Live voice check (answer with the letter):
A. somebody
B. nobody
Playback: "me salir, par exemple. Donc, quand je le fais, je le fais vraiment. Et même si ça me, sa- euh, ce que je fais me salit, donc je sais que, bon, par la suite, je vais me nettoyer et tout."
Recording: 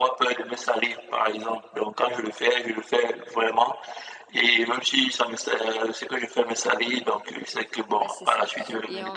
A